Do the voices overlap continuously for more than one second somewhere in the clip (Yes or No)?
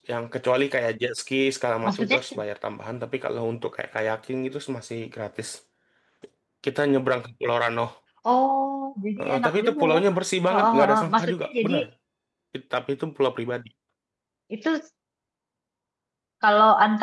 Yes